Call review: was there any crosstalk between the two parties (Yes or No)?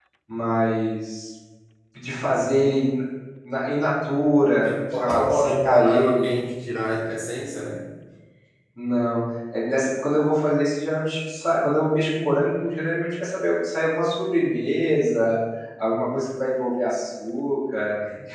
Yes